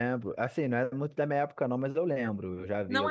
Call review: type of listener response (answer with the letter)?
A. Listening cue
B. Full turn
B